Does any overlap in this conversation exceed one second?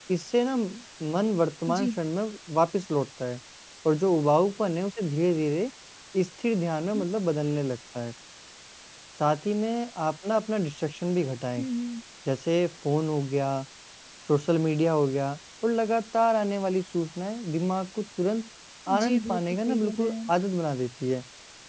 Yes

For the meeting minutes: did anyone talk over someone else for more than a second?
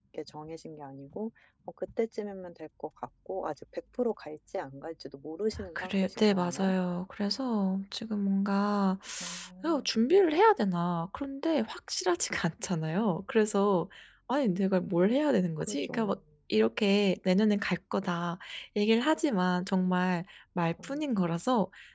Yes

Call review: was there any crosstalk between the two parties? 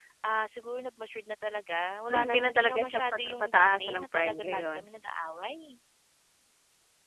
Yes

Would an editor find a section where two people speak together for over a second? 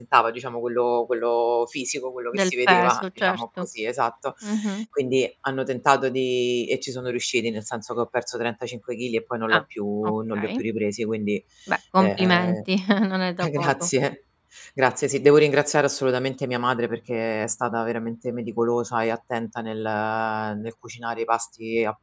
Yes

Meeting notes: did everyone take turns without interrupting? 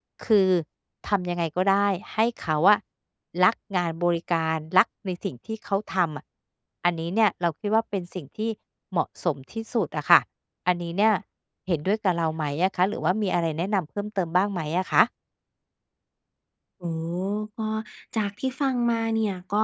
Yes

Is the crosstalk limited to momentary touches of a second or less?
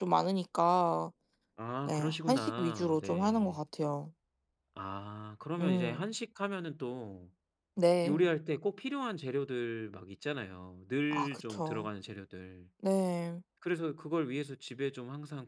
No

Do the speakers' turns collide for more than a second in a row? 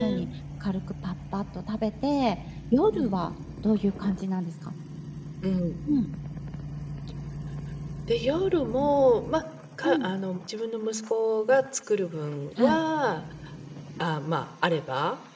No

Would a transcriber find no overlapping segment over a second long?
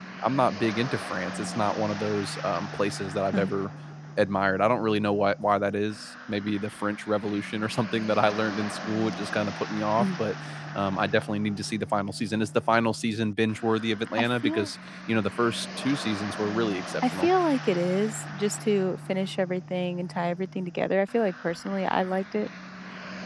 Yes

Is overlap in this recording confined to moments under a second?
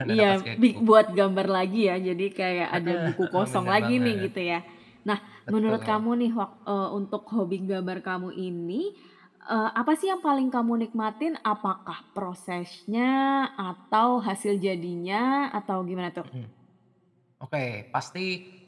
No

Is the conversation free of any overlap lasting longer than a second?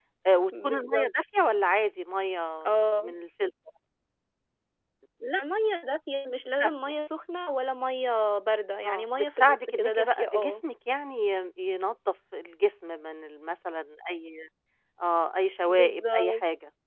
No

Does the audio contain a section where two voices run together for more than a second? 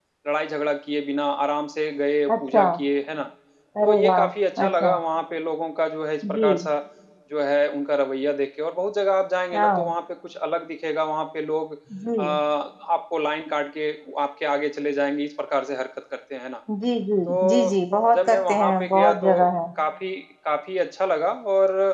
Yes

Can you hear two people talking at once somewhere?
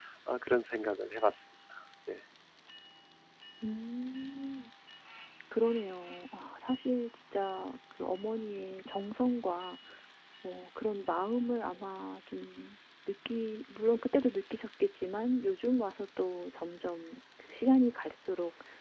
No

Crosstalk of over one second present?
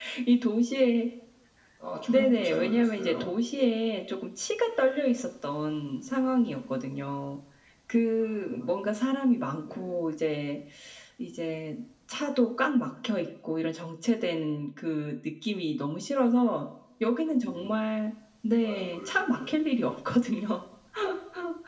Yes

